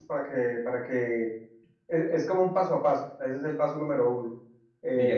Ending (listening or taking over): listening